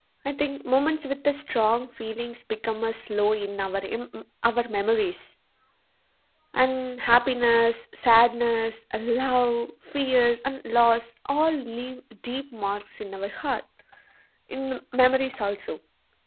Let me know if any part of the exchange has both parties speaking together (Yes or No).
No